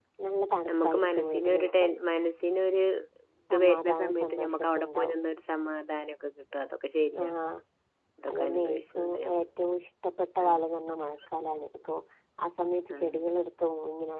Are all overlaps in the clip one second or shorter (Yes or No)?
No